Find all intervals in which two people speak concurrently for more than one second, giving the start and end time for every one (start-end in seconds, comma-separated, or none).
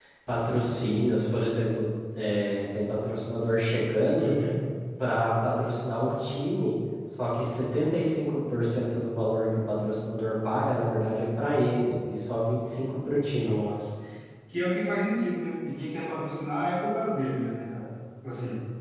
none